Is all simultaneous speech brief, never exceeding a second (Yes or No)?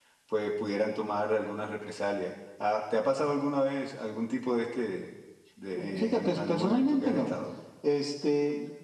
No